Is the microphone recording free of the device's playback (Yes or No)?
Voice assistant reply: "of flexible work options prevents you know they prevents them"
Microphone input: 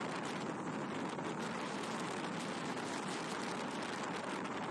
Yes